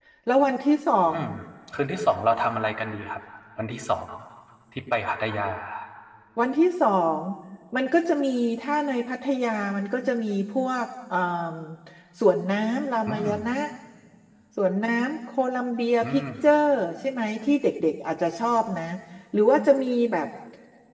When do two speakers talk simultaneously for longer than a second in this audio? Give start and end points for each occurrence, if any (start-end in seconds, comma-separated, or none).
none